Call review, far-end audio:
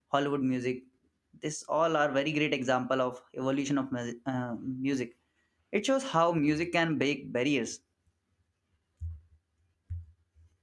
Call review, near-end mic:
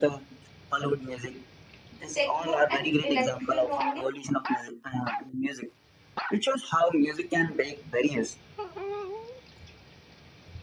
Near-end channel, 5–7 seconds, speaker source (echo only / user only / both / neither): echo only